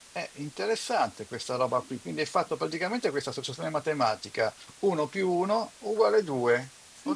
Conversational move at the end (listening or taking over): taking over